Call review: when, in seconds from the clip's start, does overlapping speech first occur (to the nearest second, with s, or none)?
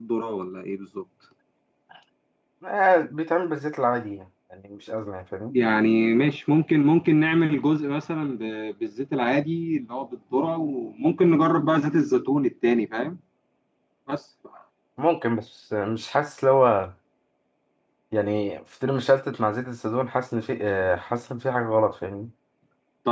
none